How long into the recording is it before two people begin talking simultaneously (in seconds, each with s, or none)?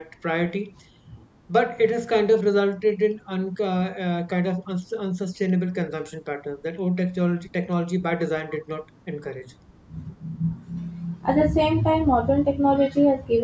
none